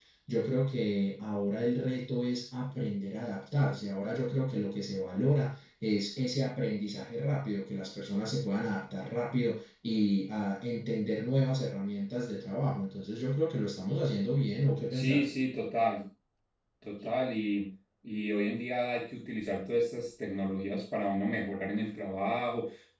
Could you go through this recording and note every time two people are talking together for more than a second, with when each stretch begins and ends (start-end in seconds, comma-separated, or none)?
none